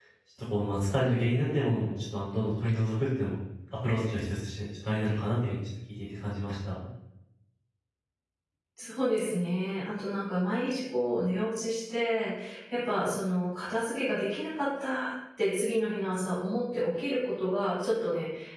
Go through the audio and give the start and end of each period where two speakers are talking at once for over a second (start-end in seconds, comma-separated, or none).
none